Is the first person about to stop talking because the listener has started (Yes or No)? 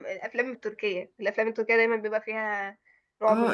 Yes